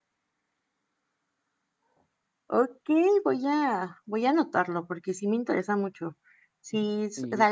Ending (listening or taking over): listening